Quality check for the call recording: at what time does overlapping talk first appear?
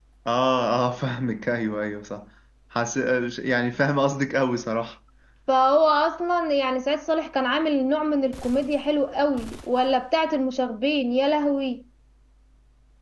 none

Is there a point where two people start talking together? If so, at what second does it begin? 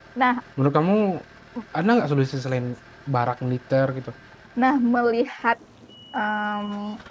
none

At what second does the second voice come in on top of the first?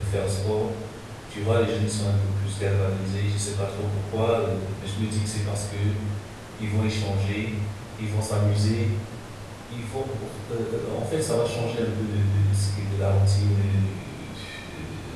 none

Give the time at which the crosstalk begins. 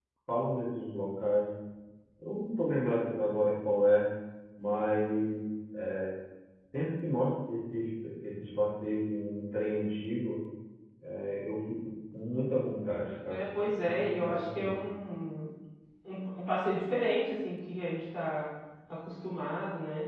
13 s

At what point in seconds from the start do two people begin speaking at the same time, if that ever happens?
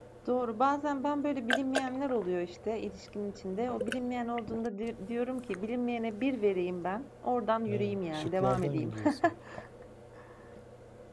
8 s

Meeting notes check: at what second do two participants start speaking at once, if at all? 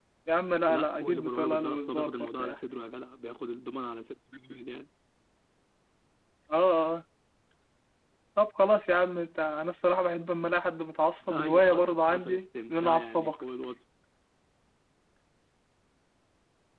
1 s

